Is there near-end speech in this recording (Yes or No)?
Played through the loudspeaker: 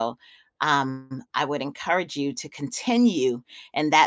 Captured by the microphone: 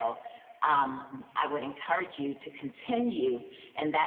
No